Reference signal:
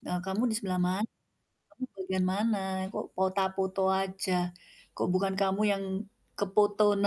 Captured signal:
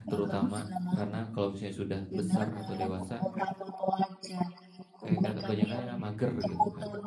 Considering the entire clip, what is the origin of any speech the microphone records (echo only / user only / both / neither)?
both